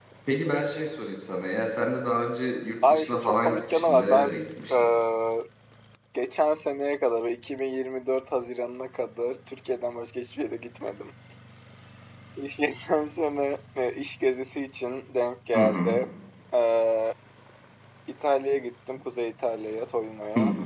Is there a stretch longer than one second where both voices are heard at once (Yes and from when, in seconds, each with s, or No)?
Yes, from 2.9 s